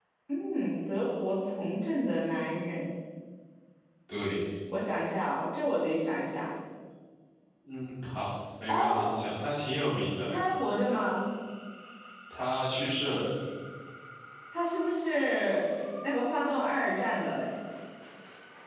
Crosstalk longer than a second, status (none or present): none